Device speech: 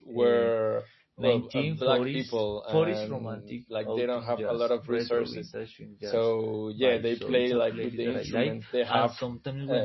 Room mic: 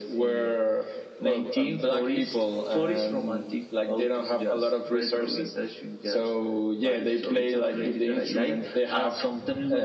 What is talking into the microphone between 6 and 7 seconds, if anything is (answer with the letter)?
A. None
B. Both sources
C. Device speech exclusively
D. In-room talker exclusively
C